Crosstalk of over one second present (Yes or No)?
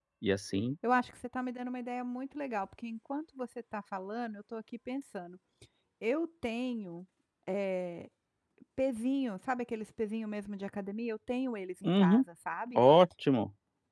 No